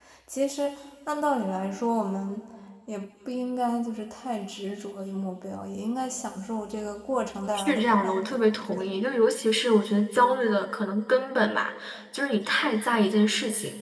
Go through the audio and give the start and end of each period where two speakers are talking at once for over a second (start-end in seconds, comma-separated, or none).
7.5-9.0